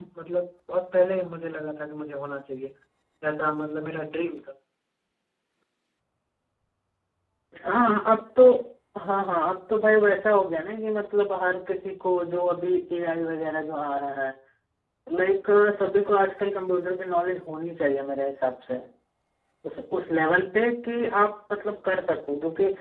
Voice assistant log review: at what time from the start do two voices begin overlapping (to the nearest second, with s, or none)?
none